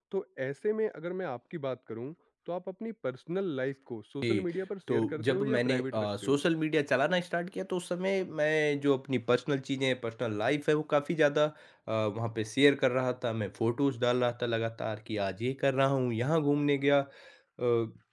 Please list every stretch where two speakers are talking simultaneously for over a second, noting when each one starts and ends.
4.9-6.4

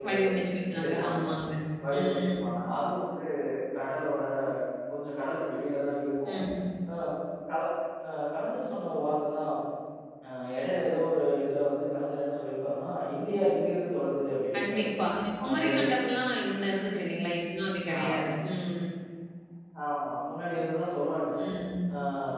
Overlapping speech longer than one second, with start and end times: none

